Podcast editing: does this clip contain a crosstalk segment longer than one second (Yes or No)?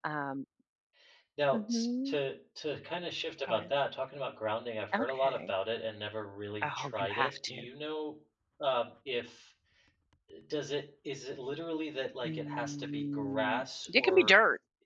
Yes